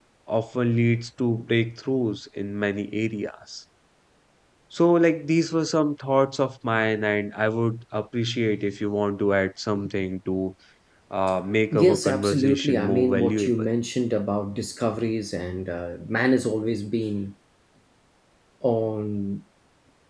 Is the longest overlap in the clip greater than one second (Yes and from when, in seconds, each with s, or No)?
Yes, from 11.7 s